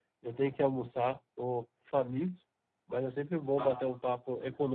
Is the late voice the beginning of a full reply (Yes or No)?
No